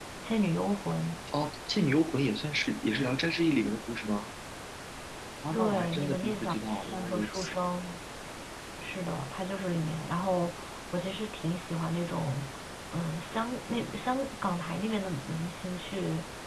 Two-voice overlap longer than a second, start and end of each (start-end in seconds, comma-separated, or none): 5.5-7.5